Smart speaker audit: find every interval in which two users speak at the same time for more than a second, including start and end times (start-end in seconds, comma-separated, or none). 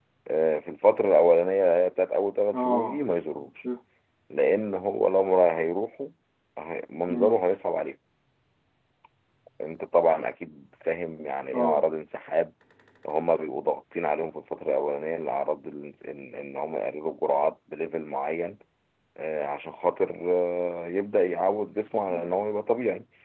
none